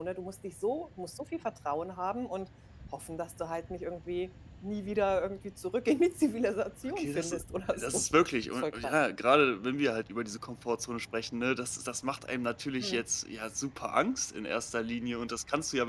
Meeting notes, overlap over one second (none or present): none